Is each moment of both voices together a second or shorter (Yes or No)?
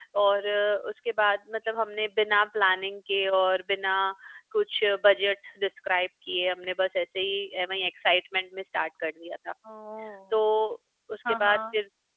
Yes